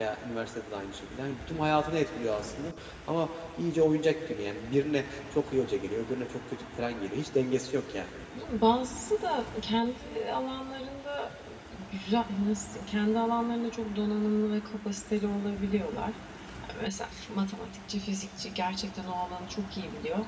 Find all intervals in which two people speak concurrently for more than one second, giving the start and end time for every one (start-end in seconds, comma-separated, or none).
none